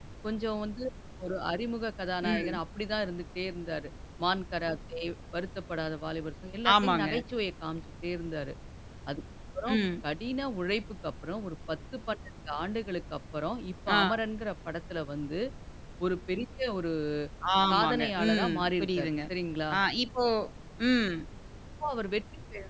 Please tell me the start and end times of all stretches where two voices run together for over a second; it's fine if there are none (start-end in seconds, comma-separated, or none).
17.7-19.1